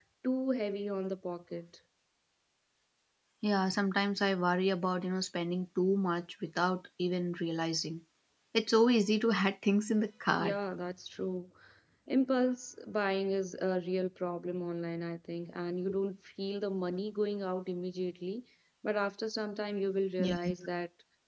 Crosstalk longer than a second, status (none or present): none